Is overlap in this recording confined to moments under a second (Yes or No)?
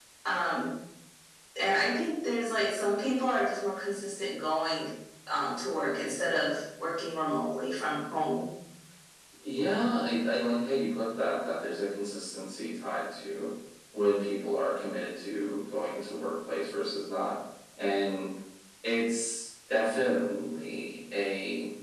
Yes